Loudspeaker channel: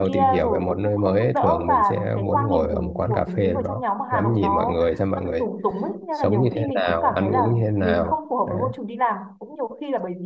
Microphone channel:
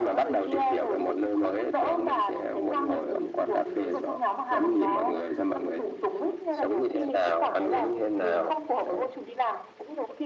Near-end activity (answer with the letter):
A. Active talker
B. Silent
B